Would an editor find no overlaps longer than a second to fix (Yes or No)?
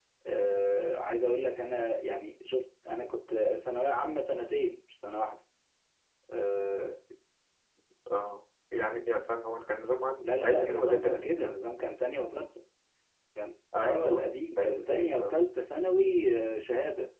No